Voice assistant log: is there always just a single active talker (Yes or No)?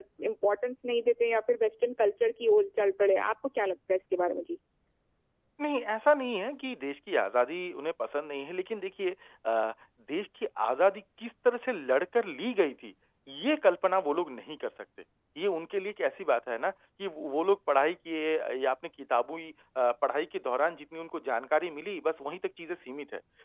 Yes